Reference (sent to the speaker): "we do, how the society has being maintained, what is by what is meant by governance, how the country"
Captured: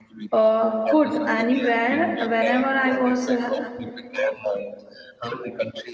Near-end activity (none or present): present